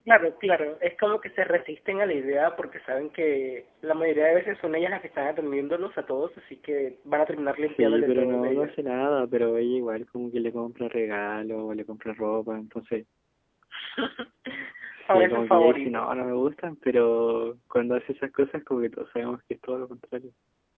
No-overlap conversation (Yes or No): No